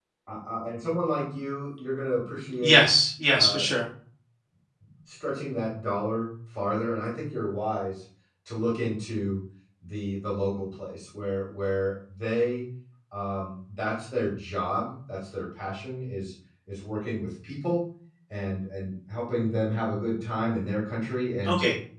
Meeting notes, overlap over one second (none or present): none